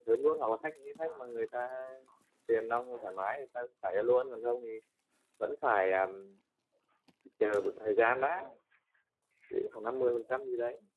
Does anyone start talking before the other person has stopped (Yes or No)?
No